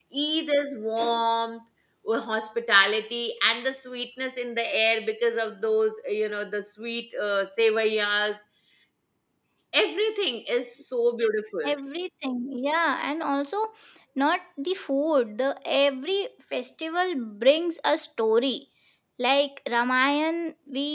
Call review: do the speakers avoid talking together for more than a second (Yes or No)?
Yes